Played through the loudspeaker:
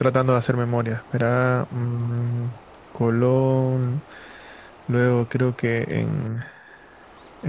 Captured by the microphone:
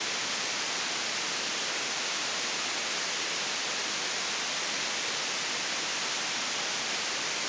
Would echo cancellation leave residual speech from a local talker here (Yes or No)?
No